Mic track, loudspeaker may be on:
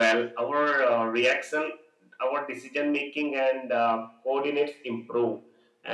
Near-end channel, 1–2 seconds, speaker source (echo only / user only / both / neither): echo only